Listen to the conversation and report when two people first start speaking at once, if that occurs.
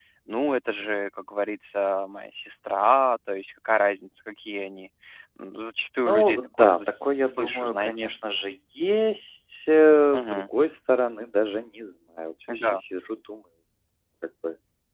6.1 s

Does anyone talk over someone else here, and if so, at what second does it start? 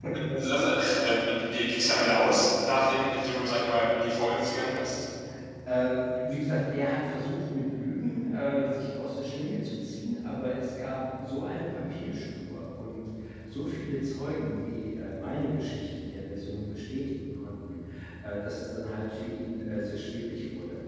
none

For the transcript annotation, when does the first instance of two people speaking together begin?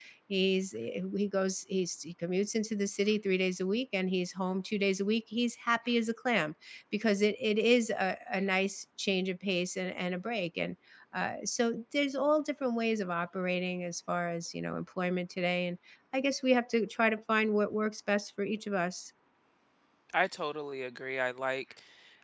none

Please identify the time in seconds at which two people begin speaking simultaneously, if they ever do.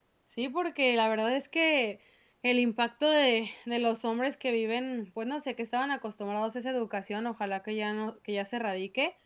none

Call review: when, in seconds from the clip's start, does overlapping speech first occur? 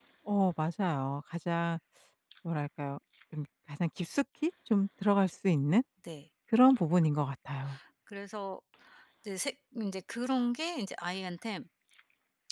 none

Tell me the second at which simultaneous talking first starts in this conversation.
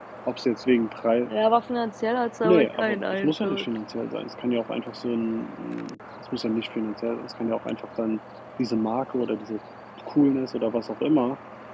2.4 s

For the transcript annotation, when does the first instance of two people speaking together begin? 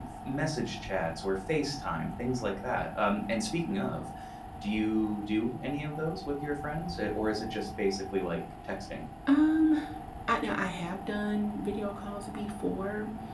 none

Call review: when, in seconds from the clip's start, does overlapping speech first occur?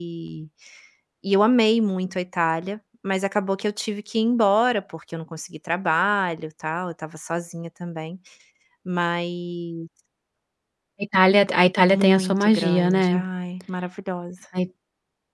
11.9 s

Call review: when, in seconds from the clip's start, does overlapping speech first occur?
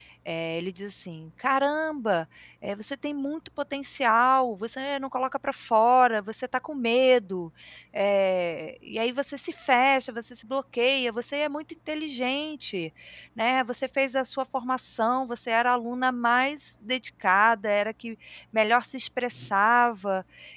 none

